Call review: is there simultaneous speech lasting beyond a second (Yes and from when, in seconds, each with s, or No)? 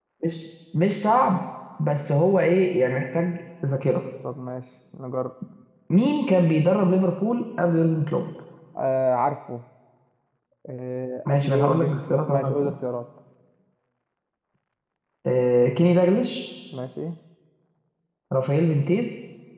Yes, from 11.2 s